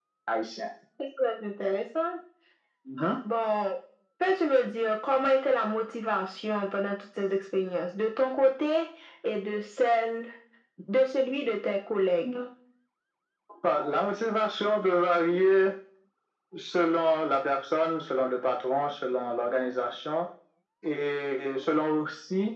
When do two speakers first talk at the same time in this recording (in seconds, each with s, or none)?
none